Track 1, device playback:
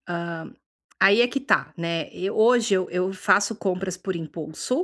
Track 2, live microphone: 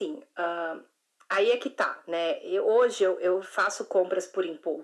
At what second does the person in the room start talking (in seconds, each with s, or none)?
none